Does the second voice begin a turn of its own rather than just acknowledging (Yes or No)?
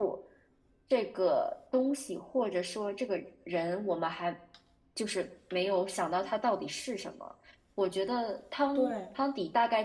No